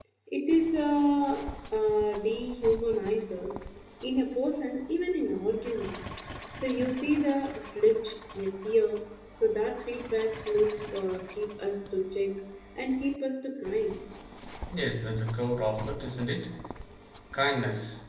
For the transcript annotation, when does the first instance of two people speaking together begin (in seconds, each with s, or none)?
none